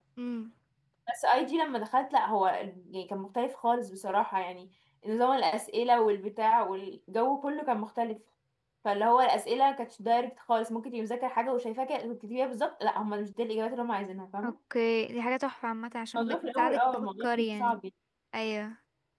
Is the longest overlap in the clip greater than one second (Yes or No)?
Yes